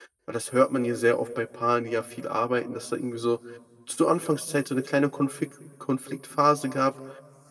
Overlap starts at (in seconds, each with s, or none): none